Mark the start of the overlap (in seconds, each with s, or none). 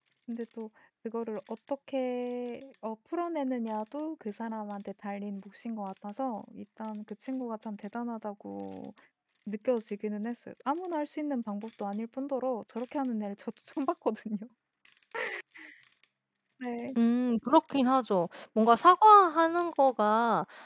none